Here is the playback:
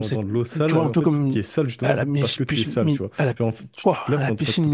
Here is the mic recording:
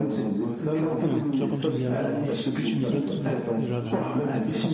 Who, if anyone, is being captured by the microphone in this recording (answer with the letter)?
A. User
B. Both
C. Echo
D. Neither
B